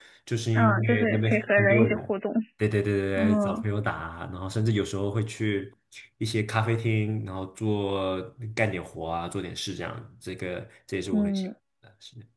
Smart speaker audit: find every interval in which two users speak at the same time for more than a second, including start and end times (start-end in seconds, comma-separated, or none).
0.6-2.1